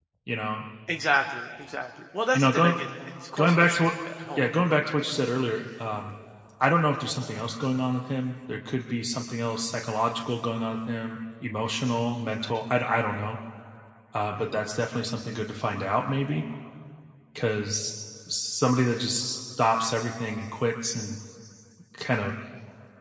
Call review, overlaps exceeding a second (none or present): none